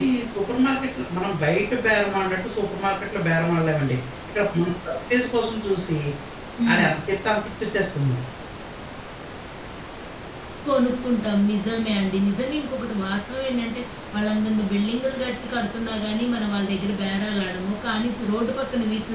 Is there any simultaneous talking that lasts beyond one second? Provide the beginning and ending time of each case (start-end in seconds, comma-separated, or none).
none